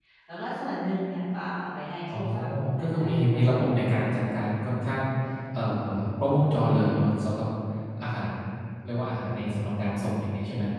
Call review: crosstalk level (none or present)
present